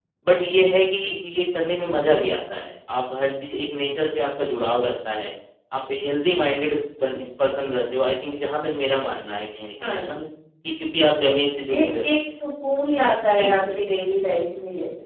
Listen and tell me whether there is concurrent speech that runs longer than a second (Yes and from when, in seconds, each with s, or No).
No